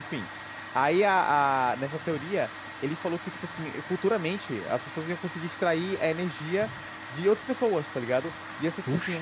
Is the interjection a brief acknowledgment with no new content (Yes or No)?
Yes